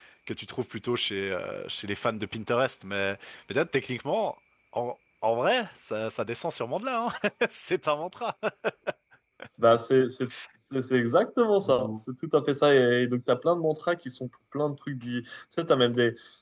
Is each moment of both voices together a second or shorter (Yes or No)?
Yes